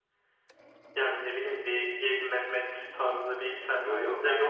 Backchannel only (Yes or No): No